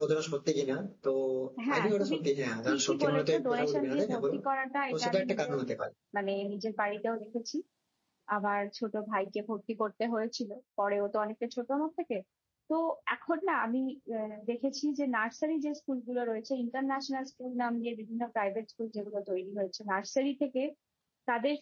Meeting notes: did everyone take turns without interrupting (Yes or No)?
No